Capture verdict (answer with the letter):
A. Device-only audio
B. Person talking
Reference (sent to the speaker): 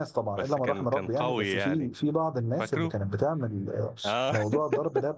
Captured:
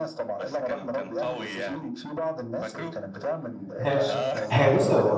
B